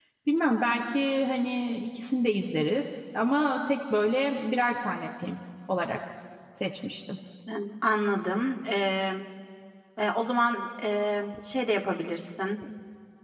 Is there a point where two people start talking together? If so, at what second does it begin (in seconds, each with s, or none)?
none